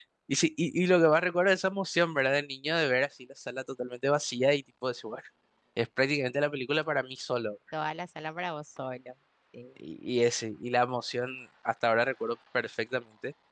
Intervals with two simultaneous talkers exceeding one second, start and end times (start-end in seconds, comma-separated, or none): none